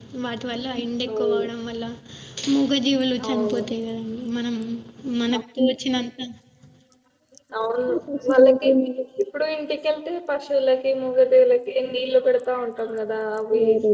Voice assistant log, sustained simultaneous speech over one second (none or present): none